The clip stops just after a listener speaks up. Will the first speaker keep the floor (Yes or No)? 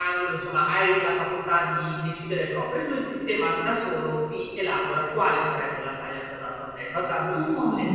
Yes